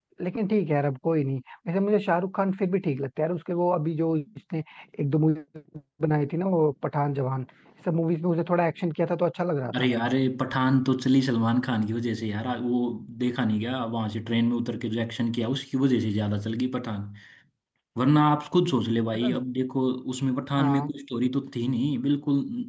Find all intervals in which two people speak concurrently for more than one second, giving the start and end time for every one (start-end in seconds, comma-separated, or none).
none